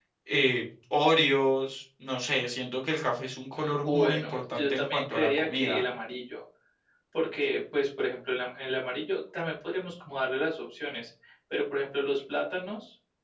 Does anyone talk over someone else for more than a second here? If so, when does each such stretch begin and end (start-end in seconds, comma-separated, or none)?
3.6-5.8